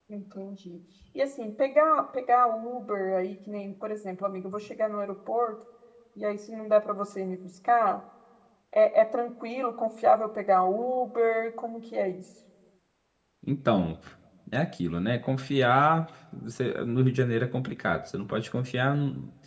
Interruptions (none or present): none